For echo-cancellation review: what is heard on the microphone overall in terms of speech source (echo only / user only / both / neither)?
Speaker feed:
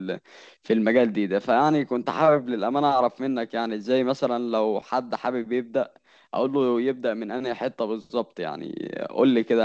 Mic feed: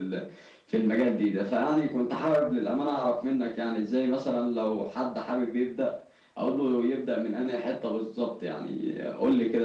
echo only